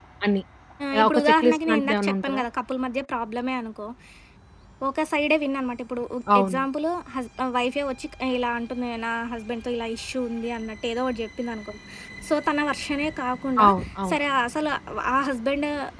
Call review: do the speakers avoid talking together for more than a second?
No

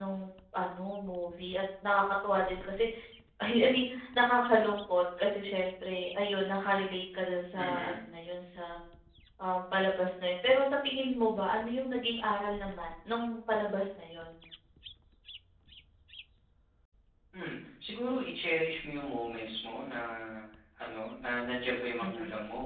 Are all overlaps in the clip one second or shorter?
Yes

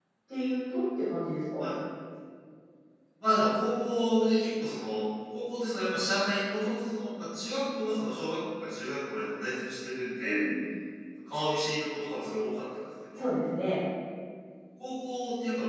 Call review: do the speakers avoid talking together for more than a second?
Yes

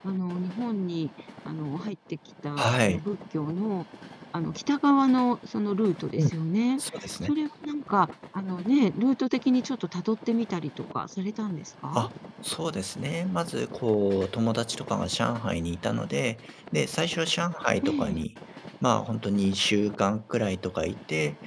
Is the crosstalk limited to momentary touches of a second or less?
Yes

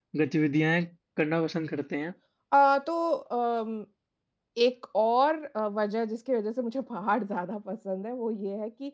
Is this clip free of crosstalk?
Yes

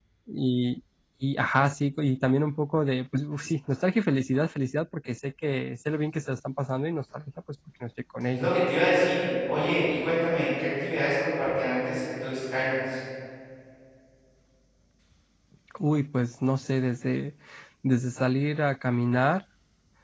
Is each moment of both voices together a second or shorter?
Yes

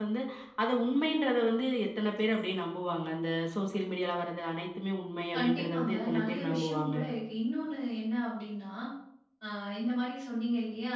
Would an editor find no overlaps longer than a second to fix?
No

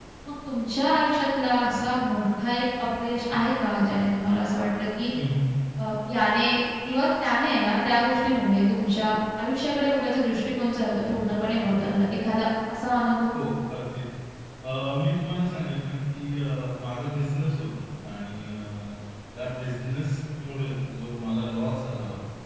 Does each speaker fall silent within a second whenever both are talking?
Yes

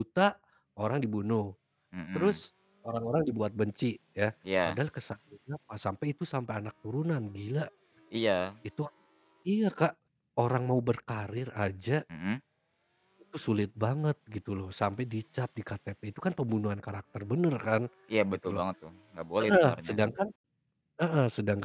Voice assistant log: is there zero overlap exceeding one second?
Yes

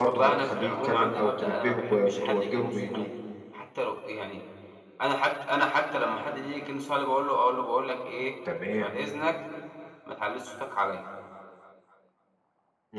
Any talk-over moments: Yes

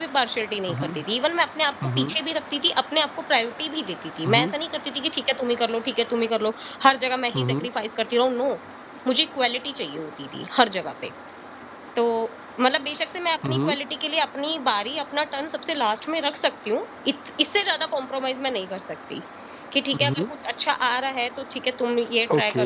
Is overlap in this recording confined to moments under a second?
Yes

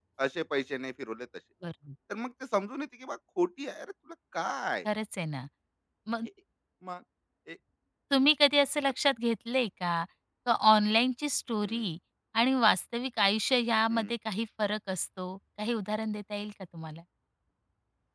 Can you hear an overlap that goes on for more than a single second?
No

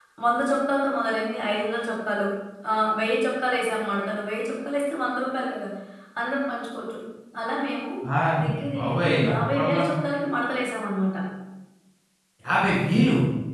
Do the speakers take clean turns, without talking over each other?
No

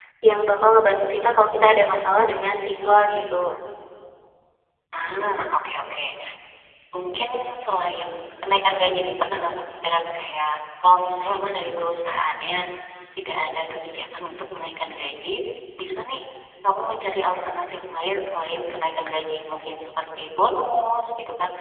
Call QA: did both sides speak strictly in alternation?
Yes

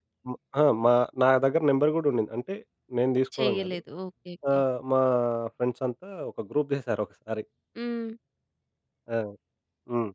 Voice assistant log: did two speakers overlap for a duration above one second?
No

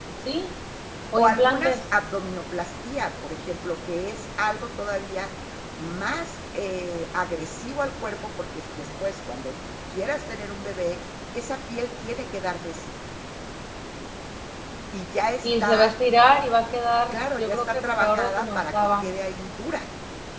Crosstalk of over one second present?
Yes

